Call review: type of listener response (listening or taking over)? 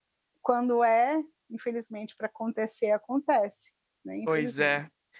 taking over